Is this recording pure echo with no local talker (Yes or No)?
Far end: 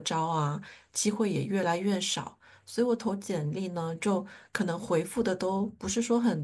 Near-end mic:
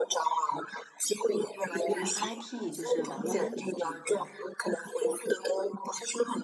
No